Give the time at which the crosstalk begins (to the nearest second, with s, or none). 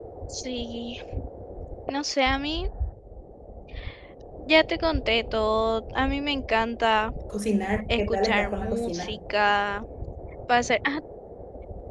8 s